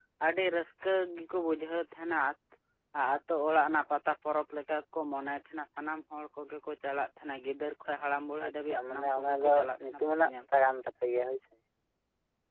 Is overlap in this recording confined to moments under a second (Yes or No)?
No